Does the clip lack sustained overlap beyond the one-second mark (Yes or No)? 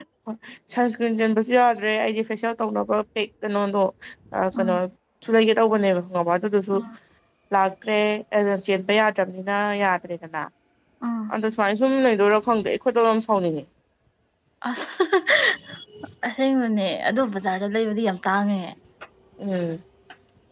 Yes